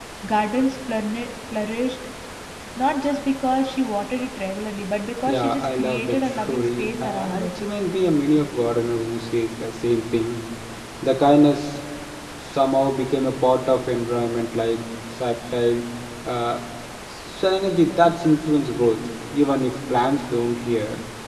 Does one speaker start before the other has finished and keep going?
Yes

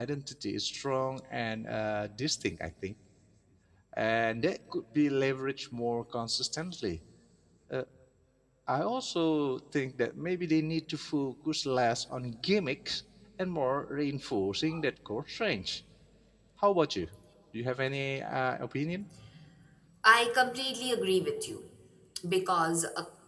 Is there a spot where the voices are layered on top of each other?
No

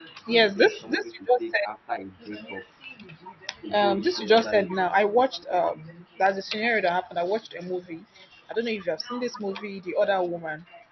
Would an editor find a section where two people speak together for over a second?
Yes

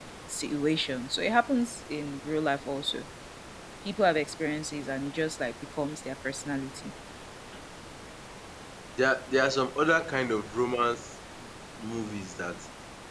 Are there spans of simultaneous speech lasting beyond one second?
No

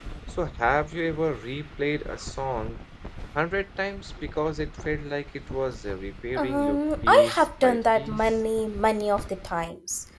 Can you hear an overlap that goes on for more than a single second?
Yes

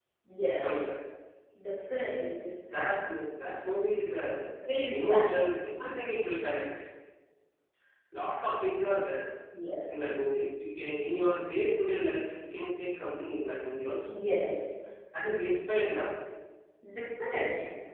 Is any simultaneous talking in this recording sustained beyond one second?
No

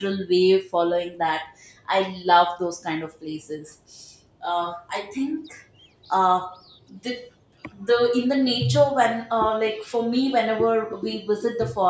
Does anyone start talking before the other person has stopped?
No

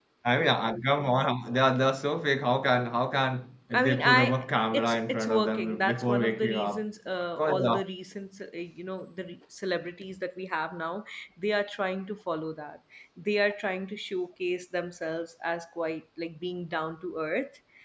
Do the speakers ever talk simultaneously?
Yes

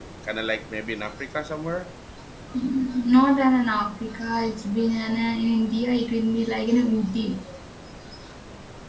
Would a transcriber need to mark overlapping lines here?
No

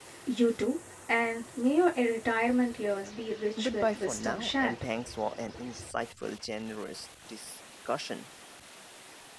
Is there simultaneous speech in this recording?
Yes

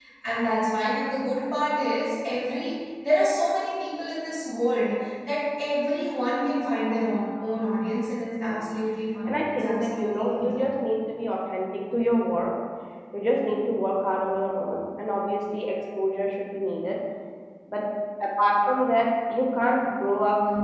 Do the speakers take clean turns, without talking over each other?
No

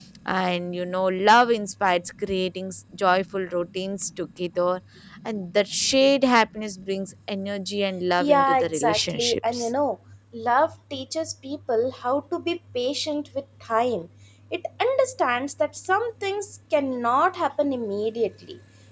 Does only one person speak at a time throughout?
No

